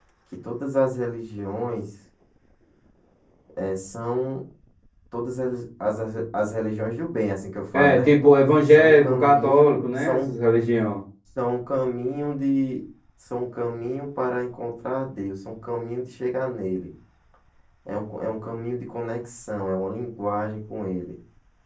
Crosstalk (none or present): present